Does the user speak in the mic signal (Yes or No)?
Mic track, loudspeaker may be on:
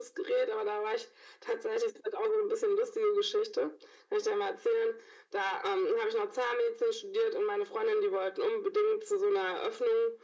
No